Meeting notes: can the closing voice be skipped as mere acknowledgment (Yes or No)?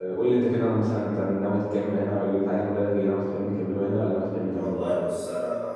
No